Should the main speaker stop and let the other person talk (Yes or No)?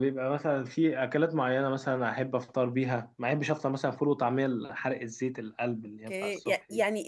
Yes